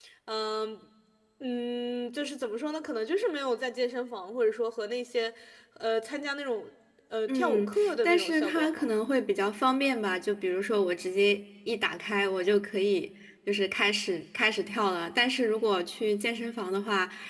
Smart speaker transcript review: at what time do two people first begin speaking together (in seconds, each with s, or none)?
7.3 s